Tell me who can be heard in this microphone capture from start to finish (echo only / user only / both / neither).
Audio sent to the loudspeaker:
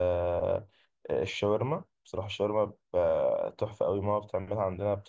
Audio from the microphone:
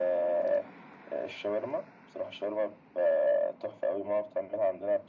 echo only